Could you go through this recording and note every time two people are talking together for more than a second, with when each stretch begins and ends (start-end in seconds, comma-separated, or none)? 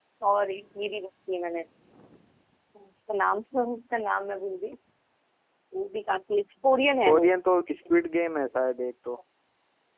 none